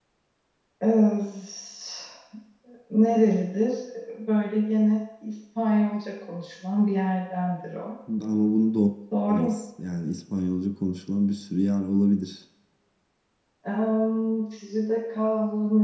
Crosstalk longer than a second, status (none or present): none